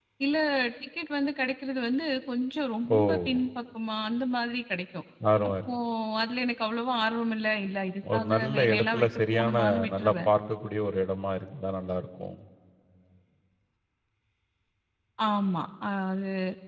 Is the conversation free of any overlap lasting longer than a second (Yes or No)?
No